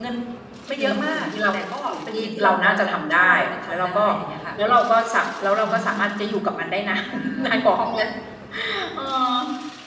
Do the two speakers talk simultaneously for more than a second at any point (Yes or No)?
Yes